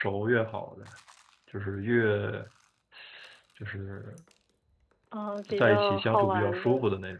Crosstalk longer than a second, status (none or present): present